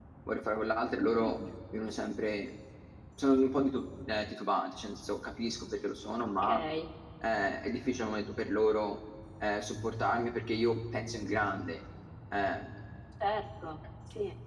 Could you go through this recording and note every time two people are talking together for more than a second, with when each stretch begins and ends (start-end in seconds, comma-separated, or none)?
none